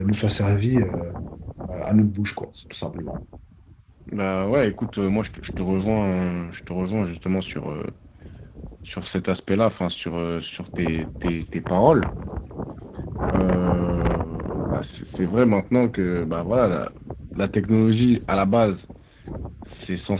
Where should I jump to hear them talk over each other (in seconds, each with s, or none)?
none